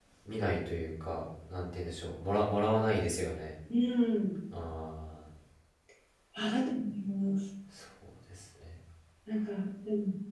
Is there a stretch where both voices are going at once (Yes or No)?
No